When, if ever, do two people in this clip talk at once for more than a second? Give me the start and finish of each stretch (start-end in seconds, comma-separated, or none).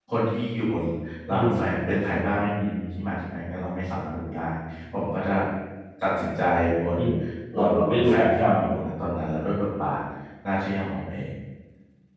7.6-8.8